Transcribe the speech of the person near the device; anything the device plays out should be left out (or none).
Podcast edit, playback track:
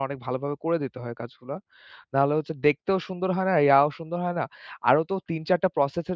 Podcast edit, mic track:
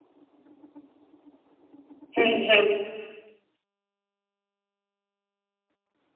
হুম, হুম।